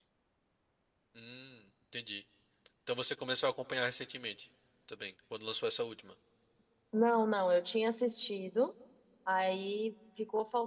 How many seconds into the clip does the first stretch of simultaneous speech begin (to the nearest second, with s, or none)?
none